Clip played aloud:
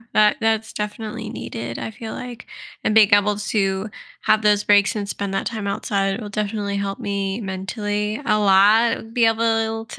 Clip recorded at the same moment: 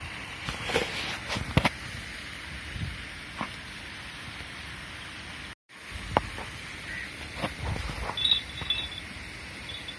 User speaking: No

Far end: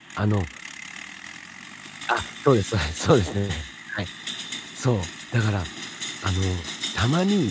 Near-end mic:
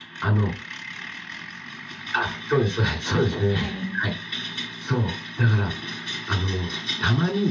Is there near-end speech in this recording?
Yes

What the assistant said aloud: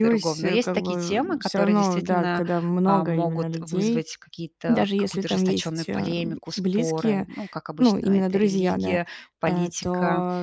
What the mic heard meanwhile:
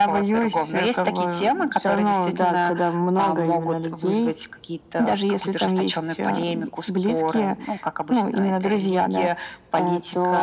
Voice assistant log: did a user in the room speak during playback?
No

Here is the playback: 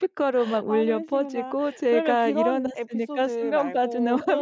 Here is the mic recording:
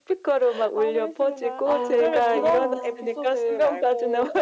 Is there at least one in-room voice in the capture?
Yes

